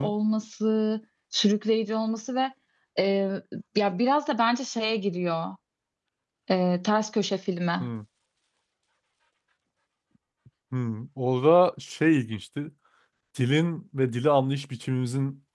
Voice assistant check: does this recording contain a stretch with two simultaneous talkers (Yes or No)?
No